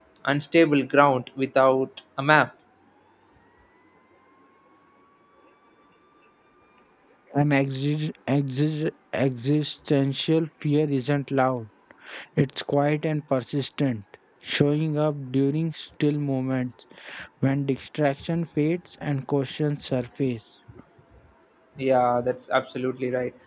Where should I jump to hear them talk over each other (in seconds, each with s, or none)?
none